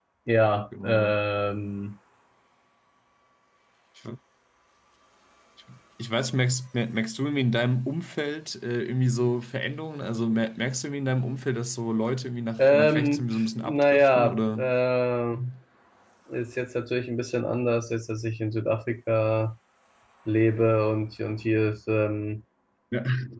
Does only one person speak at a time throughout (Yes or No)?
No